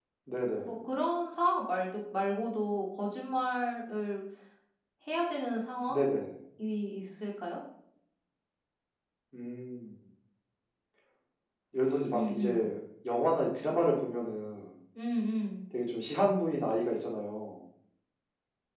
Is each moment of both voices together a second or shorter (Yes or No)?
Yes